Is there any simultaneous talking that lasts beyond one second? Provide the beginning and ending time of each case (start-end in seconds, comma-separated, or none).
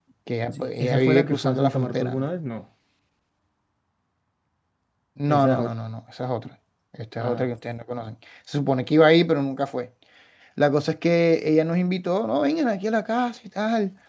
0.8-2.2